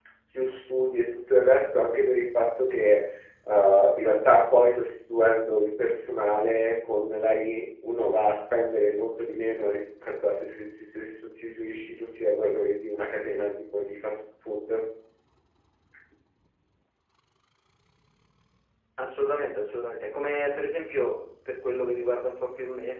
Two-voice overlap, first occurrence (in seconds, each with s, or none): none